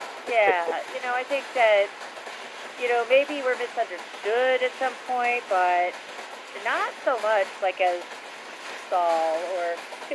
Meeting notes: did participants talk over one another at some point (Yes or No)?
No